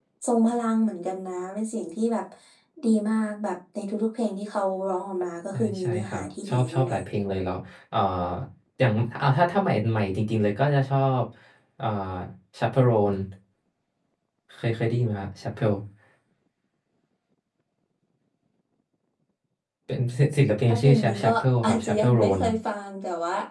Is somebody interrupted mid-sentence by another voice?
Yes, from 5.5 s

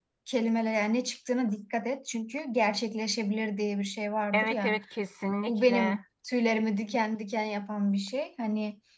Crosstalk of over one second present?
No

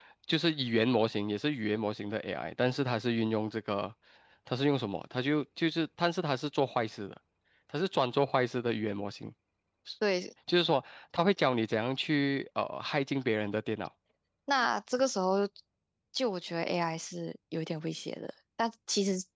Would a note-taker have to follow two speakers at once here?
No

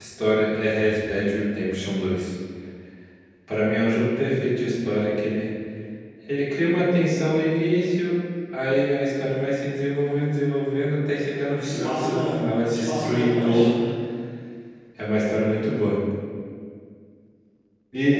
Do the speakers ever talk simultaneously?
Yes, from 11.6 s

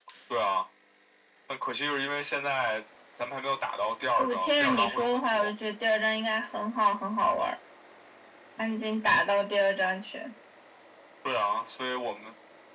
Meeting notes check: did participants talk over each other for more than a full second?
Yes, from 4.2 s

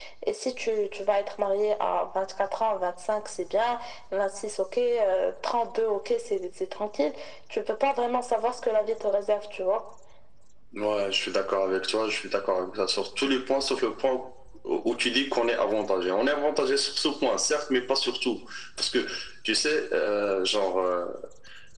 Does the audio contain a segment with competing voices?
No

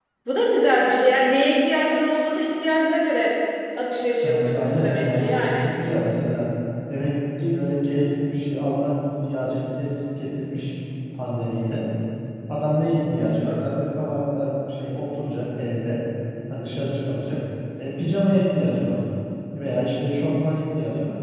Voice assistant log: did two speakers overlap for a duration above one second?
Yes, from 4.2 s

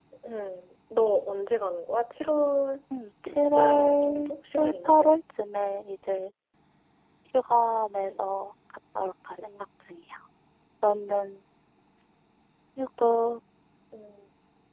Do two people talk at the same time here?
Yes, from 3.5 s

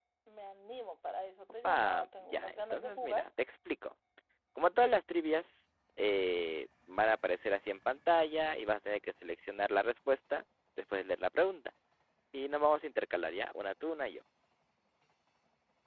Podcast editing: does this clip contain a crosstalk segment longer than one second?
Yes, from 1.6 s

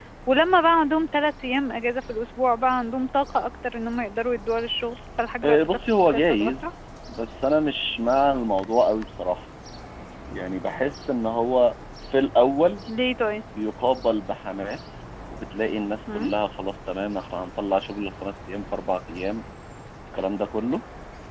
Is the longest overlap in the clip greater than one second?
Yes, from 5.4 s

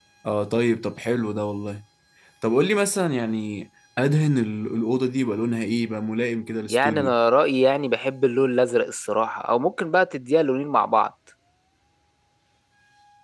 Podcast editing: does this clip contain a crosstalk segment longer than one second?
No

